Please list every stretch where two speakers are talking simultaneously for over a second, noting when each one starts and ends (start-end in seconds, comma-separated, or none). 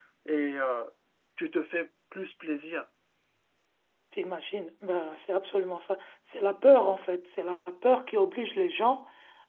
none